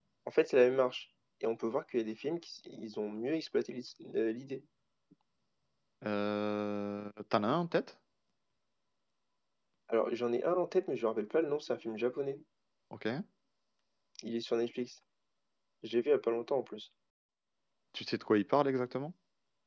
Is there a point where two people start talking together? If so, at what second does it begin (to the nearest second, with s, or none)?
none